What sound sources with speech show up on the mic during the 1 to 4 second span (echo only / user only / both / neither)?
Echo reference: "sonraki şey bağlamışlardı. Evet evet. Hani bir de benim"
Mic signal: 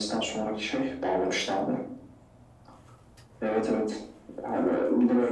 echo only